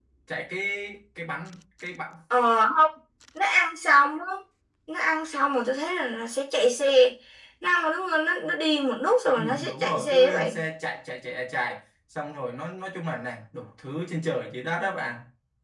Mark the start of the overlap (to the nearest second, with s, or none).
9 s